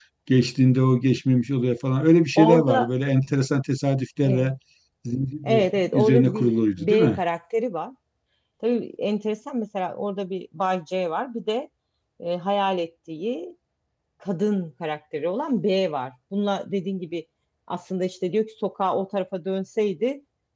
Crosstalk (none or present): present